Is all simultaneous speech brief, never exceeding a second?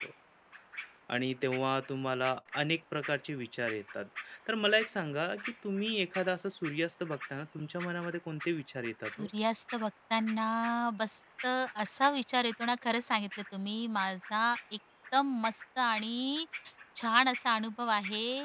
Yes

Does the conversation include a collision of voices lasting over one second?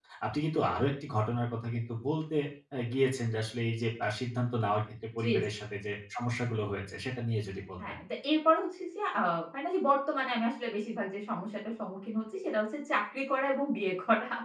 No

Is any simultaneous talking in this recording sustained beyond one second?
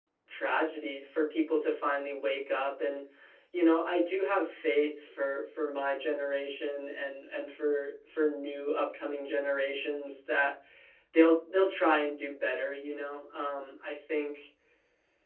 No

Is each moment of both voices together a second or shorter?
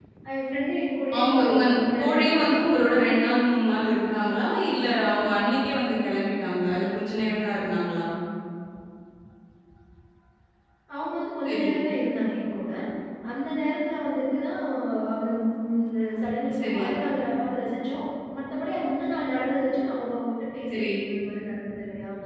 No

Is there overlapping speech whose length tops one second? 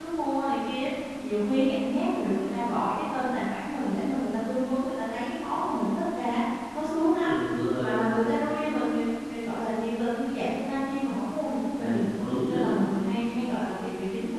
No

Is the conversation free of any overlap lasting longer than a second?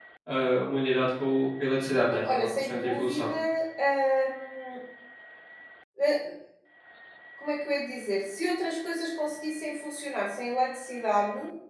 No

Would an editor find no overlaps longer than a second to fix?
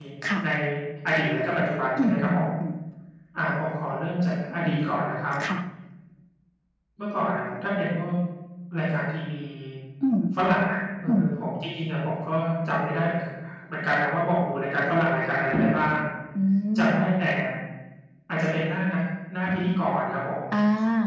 Yes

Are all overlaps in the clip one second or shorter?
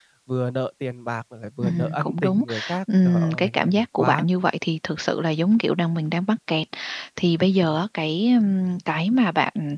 No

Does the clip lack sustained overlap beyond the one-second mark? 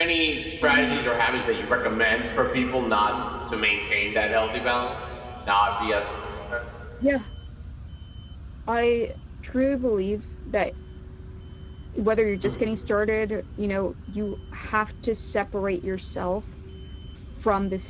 Yes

